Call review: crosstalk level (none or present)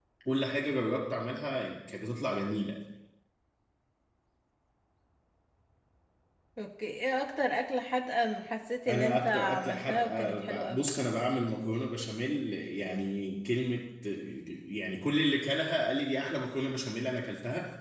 present